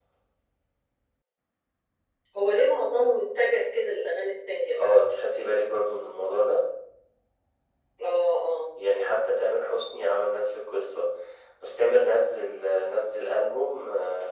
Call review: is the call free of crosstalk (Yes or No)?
Yes